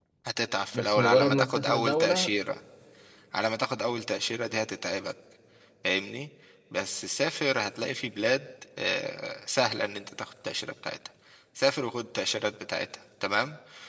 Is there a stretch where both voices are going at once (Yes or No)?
Yes